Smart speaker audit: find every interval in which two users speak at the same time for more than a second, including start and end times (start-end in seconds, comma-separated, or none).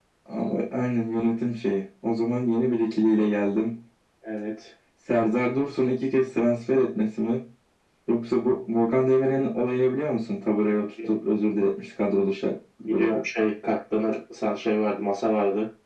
none